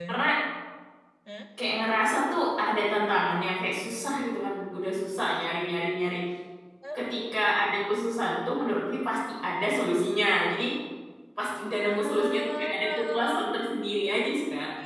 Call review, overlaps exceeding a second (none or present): present